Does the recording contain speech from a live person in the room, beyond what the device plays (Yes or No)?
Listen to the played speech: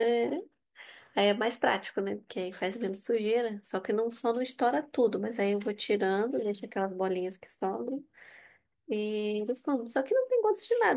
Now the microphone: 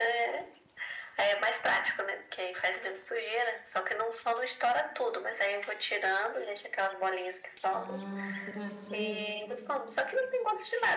Yes